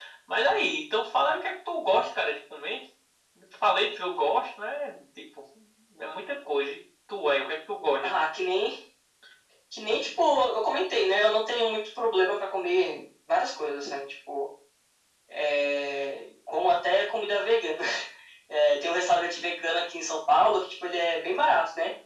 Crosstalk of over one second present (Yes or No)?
No